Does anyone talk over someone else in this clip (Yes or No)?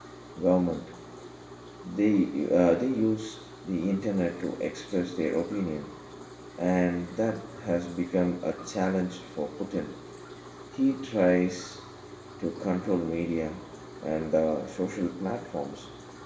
No